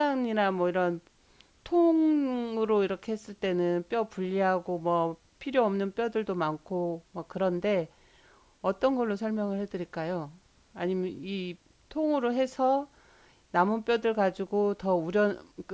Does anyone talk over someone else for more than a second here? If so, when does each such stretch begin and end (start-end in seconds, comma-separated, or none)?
none